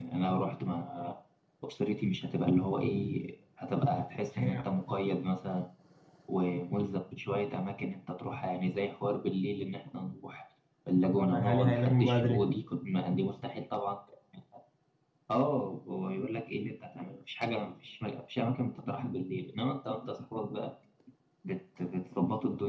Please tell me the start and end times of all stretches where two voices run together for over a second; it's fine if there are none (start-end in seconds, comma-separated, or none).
11.0-12.5